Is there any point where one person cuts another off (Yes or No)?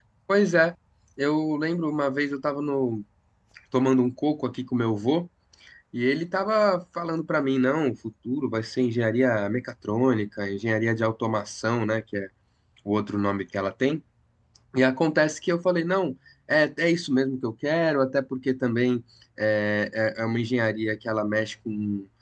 No